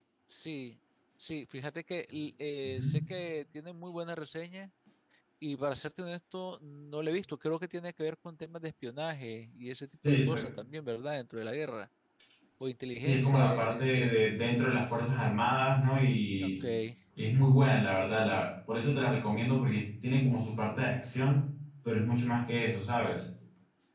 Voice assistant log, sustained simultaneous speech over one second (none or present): present